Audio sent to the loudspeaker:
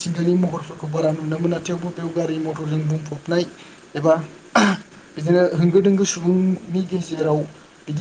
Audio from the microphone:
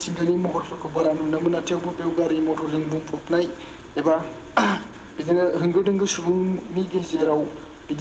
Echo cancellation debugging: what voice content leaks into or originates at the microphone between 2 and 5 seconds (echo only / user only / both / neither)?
echo only